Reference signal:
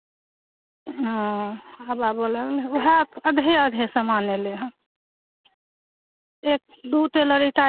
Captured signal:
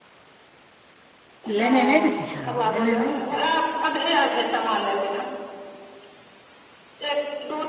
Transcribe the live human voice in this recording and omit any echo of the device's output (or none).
लेने नइ ने किछु रह लेने नइ ने किछु